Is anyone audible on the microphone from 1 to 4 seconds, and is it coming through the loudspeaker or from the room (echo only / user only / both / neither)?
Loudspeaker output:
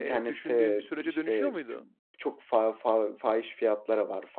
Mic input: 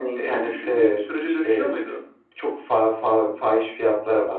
echo only